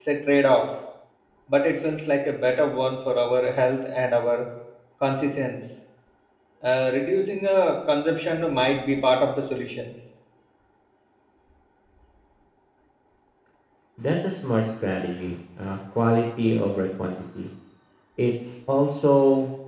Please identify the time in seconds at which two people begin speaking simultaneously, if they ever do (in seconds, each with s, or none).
none